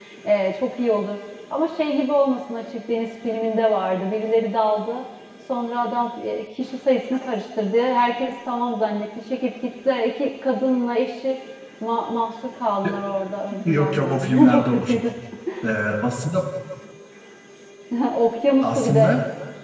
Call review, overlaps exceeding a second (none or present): present